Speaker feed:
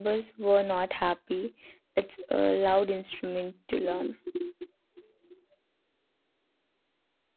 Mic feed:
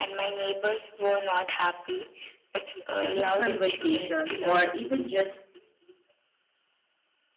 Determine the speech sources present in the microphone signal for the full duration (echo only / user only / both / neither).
both